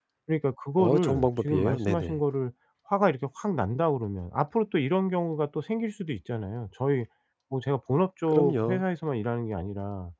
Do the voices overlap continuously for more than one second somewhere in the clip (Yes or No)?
Yes